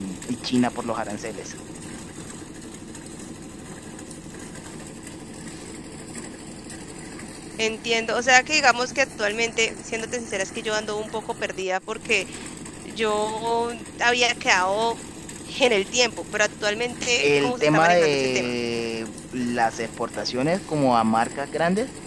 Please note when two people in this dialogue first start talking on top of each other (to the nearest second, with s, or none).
17 s